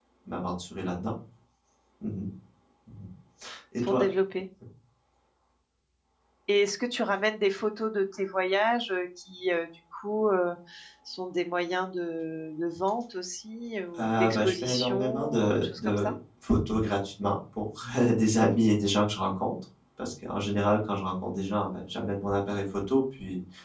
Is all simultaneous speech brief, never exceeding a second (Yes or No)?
No